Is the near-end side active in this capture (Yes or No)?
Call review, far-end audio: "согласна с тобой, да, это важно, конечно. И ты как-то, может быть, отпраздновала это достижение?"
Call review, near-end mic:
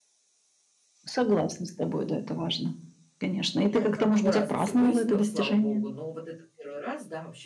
Yes